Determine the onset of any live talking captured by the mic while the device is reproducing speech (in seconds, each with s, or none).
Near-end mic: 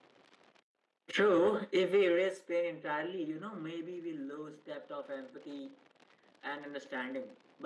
none